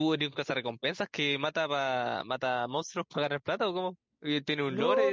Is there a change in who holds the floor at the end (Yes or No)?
Yes